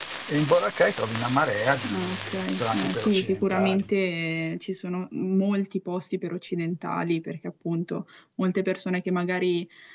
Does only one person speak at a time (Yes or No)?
No